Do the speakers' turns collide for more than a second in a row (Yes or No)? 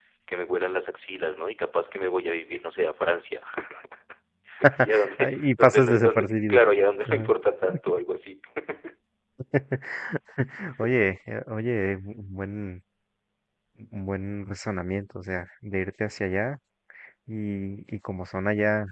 Yes